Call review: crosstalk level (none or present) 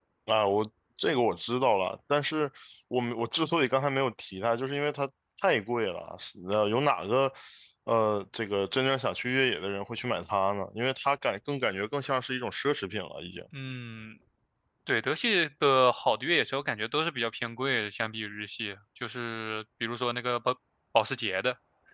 none